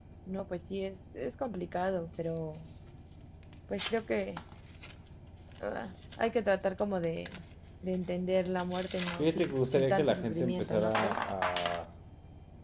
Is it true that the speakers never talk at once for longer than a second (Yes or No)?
No